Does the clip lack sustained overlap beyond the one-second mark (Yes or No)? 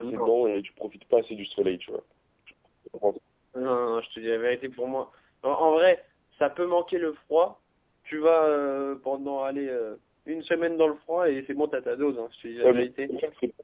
Yes